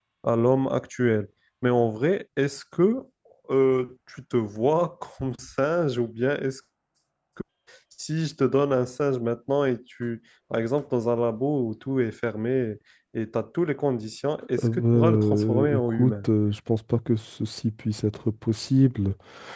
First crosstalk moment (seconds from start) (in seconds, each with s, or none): 14.5 s